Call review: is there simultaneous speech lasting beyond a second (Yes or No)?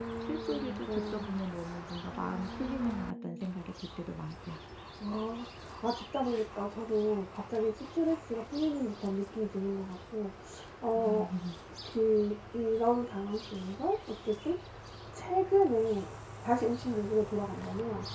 Yes